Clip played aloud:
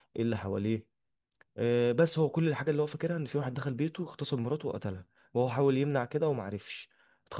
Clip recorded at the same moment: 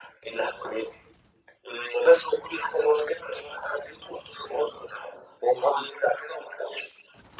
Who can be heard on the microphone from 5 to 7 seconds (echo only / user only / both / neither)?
echo only